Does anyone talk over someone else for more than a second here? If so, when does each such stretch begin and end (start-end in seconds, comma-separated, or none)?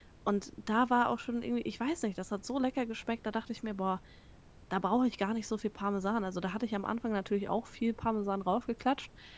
none